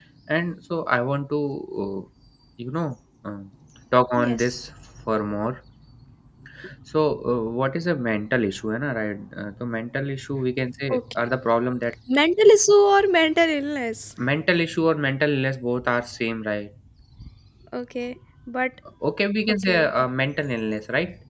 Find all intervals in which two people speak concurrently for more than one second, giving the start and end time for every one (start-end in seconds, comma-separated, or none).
none